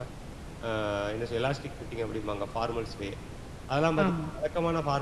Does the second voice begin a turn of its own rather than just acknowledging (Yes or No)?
No